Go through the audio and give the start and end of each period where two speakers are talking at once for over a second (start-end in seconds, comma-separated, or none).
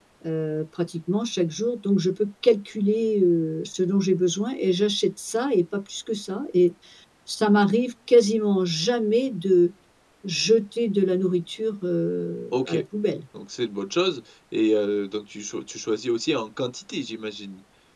none